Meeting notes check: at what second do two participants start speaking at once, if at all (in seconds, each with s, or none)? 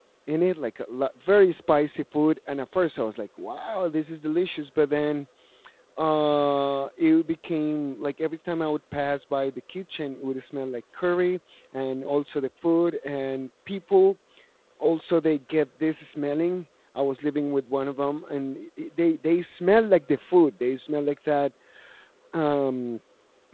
none